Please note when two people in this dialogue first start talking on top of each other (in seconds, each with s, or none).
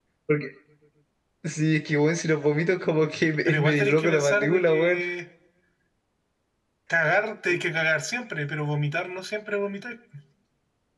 3.5 s